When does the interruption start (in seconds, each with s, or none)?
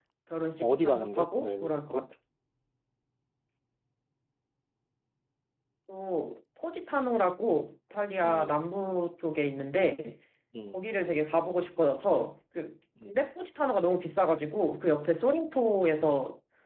0.6 s